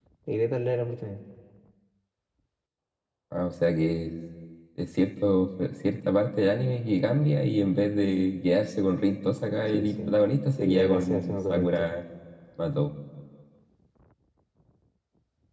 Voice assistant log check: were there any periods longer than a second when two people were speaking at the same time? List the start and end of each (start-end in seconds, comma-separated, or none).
10.6-12.0